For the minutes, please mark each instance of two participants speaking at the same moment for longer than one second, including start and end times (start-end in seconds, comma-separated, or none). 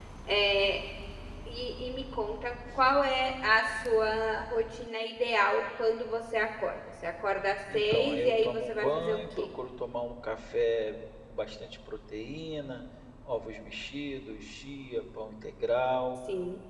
7.7-9.5